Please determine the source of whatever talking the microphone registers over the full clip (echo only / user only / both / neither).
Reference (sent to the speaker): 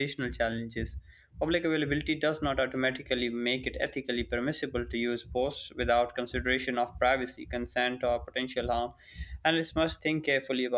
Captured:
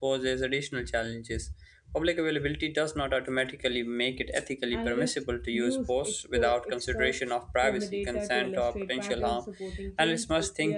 both